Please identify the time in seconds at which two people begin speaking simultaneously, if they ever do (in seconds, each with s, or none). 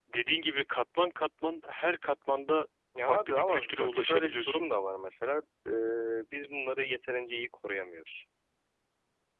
2.9 s